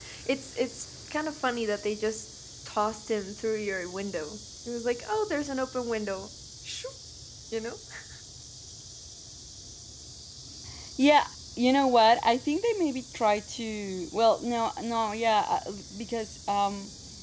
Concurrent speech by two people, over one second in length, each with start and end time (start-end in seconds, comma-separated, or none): none